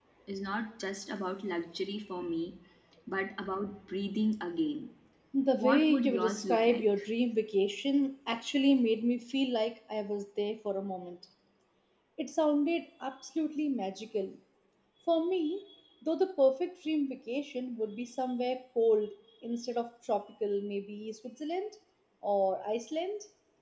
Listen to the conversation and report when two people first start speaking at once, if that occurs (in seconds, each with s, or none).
5.5 s